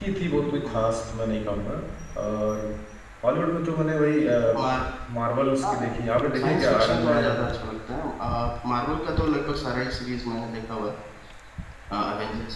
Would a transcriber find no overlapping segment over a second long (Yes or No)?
No